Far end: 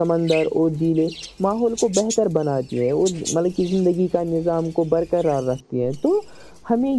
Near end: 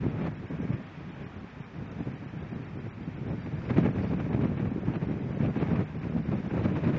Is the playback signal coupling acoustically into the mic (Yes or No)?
No